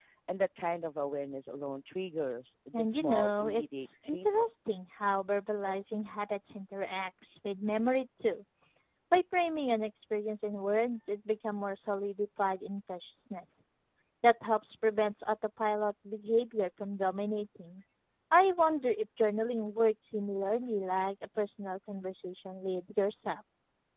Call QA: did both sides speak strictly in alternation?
No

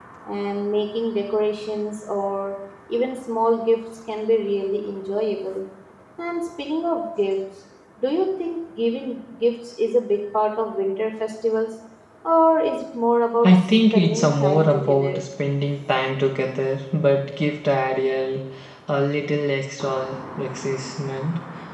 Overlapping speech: Yes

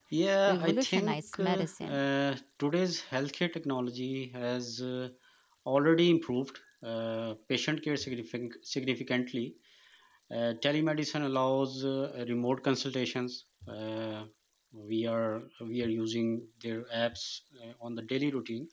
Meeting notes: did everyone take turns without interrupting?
No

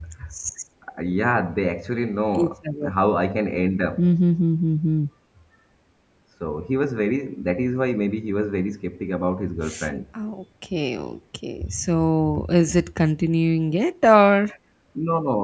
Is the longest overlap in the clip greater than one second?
No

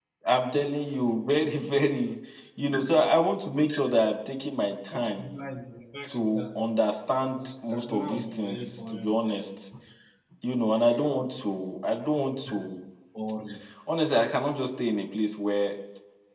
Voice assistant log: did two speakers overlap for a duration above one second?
Yes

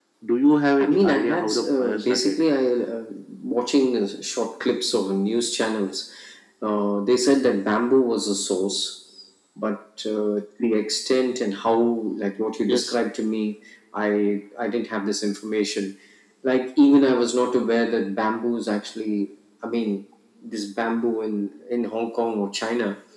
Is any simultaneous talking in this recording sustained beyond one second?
Yes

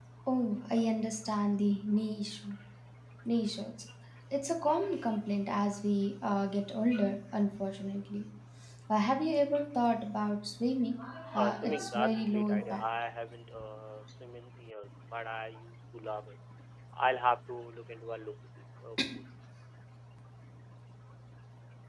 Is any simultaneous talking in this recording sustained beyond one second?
Yes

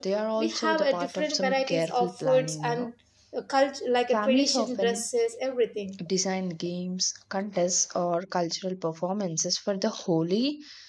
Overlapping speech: Yes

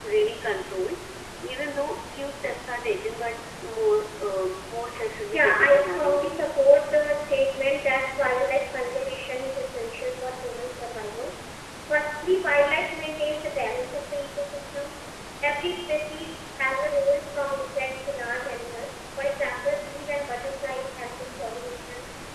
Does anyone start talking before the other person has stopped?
Yes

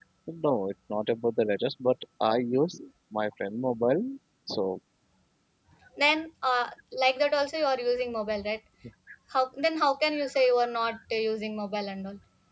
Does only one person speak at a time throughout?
Yes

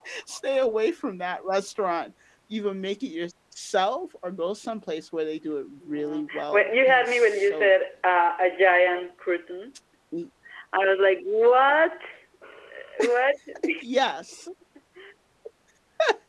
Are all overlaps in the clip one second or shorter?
No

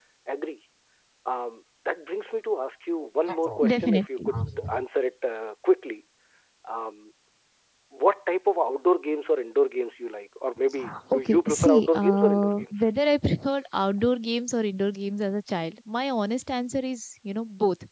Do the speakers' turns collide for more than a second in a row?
Yes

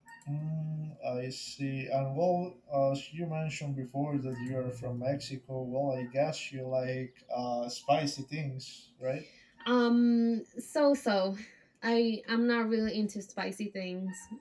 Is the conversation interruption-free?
Yes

